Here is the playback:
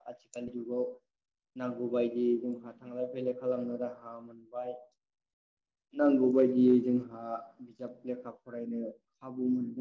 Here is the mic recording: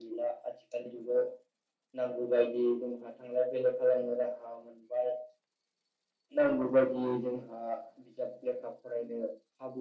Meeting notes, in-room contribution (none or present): none